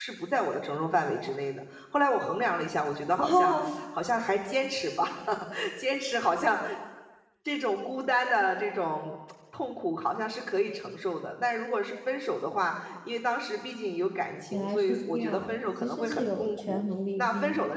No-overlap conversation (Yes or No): No